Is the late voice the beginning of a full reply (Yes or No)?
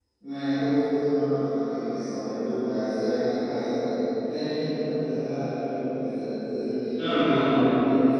Yes